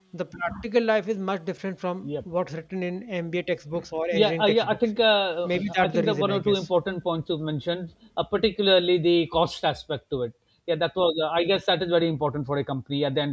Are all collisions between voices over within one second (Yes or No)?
No